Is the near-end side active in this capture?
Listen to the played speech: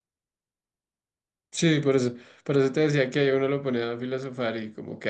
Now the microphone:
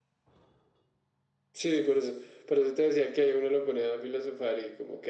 No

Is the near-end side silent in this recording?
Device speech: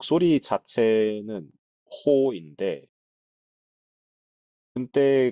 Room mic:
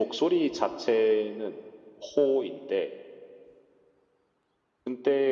Yes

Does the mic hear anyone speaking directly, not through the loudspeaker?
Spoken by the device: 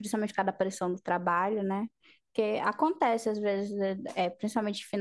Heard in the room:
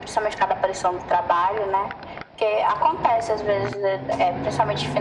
No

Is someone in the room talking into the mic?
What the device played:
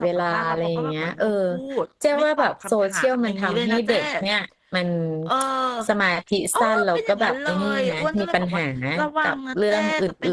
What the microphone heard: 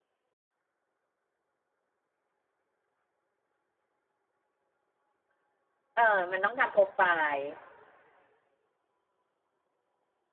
Yes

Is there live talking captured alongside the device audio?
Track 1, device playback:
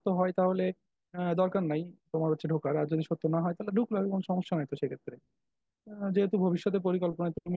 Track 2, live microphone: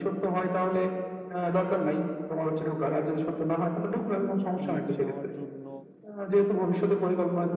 Yes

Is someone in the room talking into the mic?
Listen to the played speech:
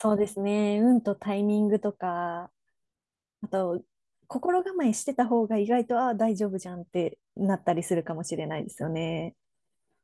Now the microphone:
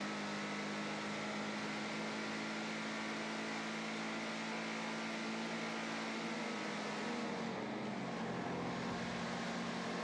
No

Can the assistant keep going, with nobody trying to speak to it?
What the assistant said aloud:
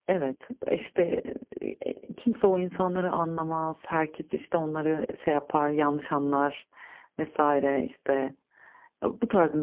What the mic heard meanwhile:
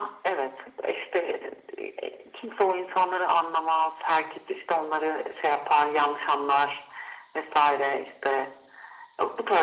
Yes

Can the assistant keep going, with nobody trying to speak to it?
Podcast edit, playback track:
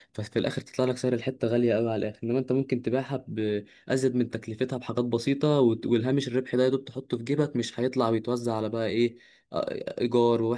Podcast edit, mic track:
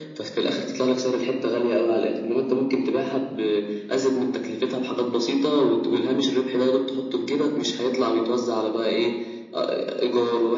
Yes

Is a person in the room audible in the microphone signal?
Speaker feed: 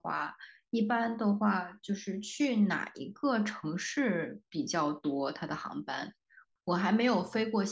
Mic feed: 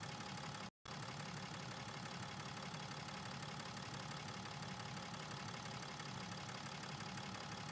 No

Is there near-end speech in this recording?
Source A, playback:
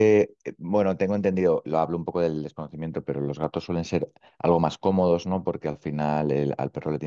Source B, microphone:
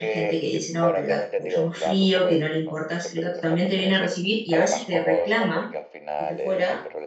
Yes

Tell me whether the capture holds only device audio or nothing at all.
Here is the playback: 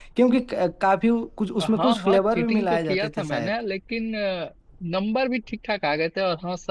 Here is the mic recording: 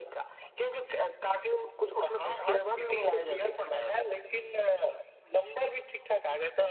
Yes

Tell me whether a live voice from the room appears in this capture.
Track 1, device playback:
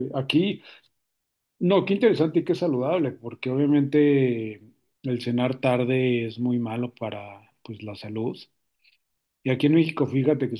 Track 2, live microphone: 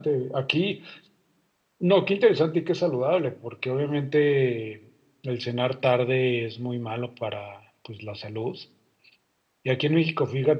No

